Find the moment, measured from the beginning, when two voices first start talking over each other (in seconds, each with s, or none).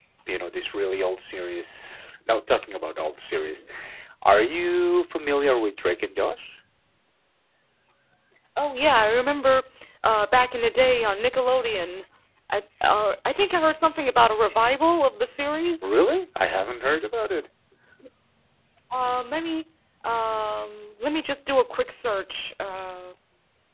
none